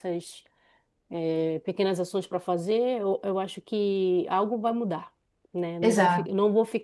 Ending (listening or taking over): listening